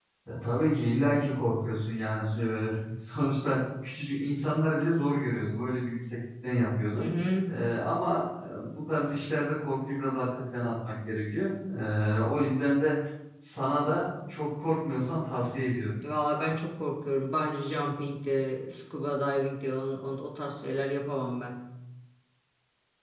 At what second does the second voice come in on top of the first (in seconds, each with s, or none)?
none